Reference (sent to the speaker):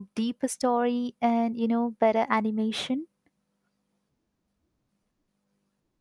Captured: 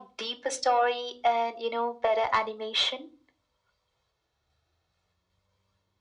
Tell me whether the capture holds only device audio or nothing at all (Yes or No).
Yes